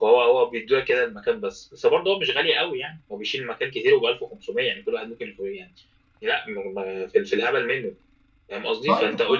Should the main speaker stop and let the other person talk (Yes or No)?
No